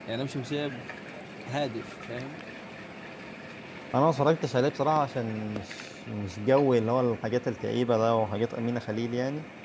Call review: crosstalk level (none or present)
none